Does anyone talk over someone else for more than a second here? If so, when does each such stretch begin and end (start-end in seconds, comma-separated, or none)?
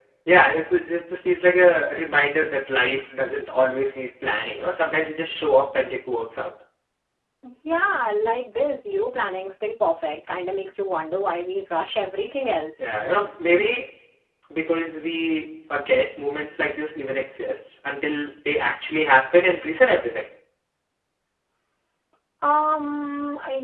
none